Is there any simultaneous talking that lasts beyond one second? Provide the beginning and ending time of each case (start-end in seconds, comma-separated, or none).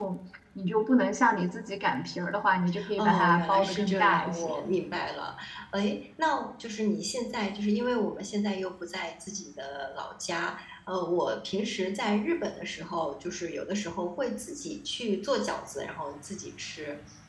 3.0-4.5